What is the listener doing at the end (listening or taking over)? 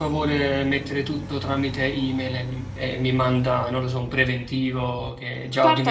taking over